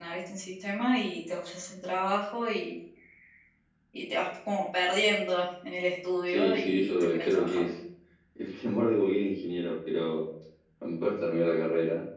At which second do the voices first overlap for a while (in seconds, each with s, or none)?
6.3 s